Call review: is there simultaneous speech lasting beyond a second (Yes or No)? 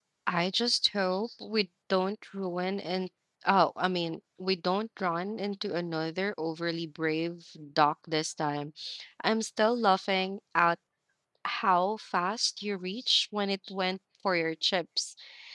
No